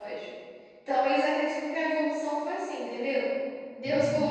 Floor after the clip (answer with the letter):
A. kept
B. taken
A